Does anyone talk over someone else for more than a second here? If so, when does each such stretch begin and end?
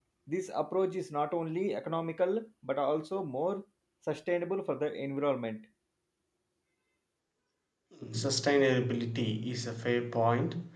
none

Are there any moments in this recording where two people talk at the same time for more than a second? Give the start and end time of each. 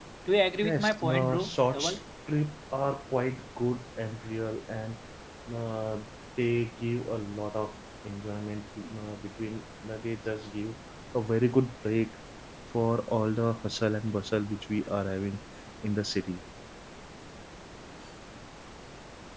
0.6-2.0

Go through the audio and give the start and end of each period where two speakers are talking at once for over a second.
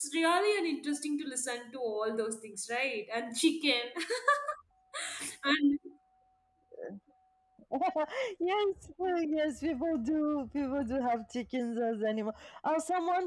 none

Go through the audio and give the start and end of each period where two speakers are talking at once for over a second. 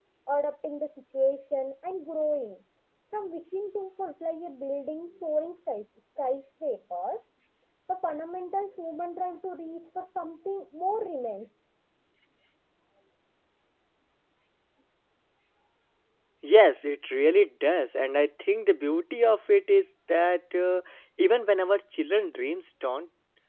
none

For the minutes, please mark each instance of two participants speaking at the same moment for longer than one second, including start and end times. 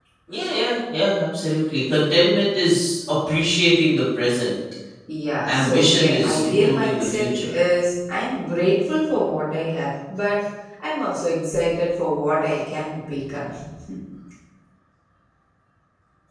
5.4-7.6

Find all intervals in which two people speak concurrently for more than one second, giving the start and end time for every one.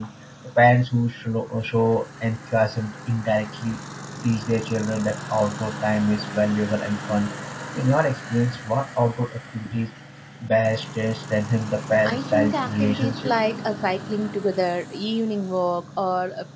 12.0-13.3

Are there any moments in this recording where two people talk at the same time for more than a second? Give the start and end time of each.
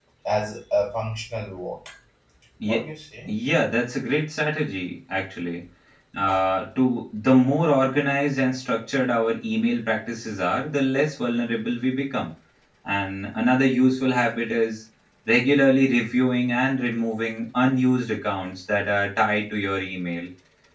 none

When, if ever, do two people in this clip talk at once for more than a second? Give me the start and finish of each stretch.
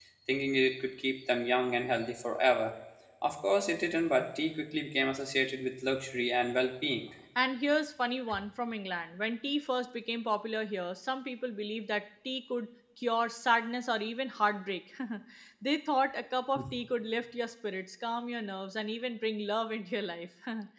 none

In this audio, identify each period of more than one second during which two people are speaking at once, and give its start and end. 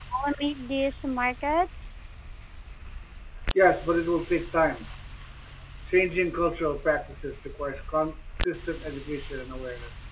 none

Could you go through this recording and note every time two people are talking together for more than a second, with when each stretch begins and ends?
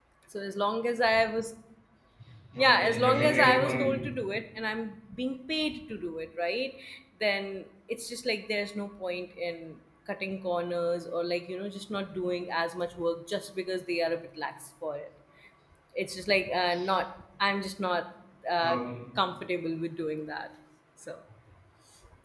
2.6-3.9

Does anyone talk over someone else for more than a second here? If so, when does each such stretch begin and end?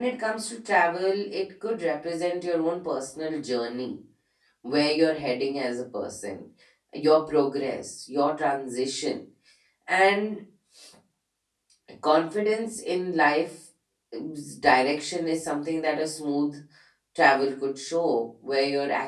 none

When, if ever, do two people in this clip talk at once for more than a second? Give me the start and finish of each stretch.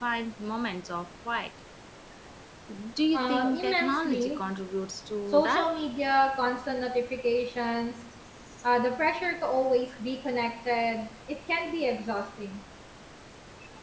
3.1-4.4

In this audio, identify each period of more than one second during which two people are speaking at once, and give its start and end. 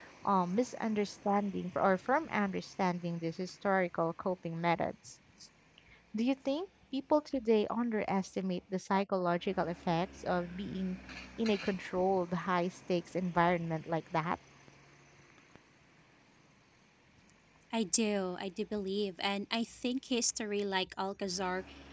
none

